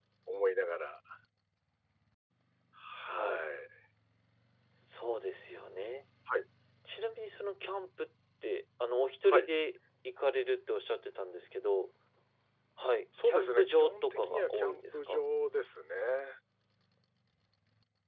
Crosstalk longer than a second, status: present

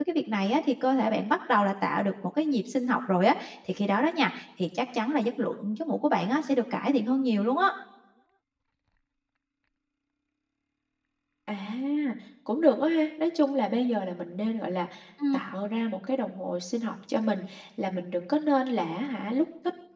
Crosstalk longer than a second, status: none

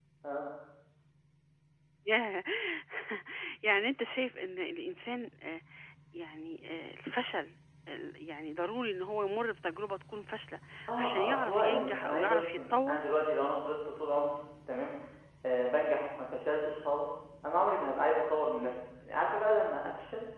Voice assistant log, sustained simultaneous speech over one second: present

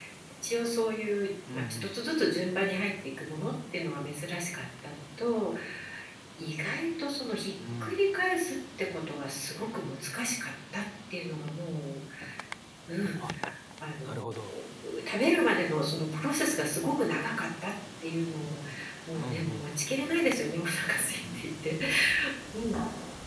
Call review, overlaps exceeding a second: none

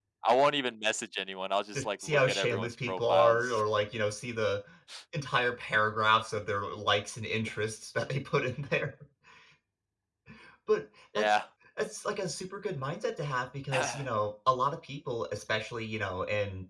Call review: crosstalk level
present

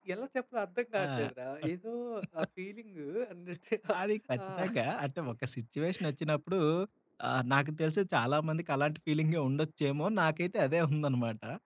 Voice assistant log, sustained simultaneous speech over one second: none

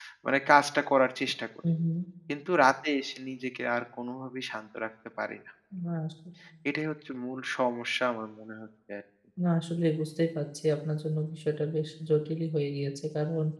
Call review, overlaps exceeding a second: none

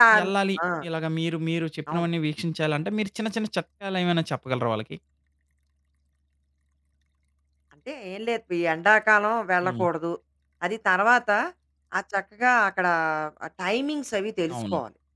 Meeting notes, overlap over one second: none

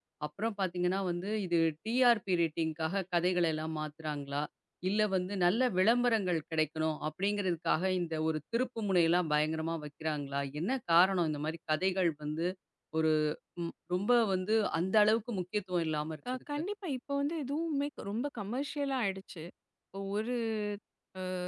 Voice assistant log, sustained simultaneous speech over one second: none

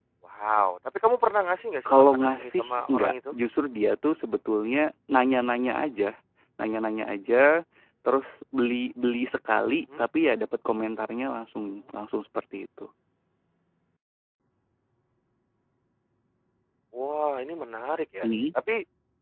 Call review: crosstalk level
present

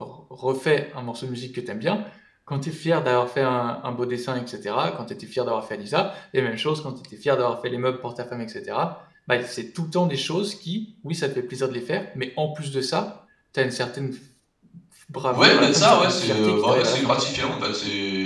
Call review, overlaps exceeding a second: present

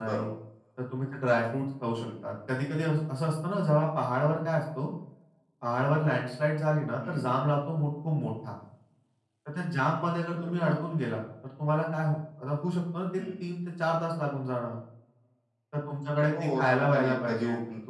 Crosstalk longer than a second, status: present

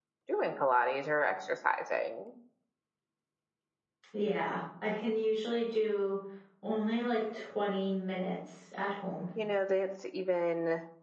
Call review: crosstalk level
none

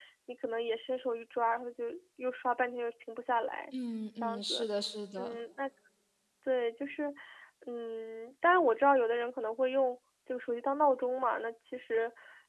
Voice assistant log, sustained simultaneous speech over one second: none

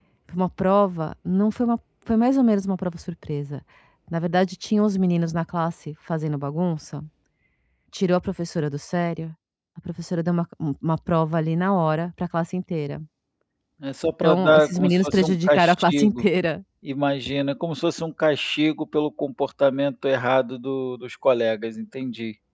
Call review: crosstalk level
present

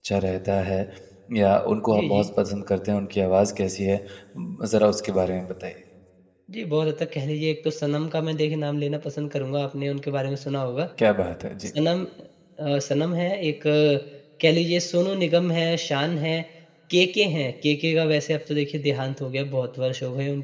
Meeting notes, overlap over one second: none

